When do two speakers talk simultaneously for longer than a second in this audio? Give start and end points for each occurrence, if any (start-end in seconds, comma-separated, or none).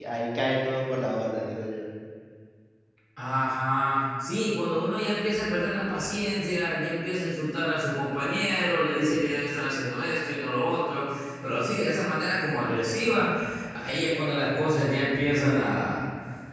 none